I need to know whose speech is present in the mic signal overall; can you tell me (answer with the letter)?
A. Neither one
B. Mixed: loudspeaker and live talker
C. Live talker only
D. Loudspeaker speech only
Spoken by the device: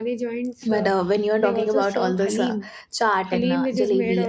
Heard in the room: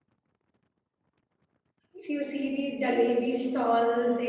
C